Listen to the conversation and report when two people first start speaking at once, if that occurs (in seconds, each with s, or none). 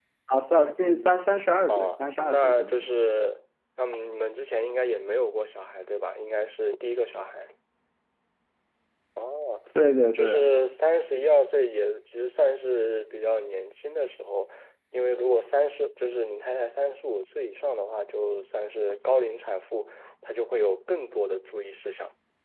1.7 s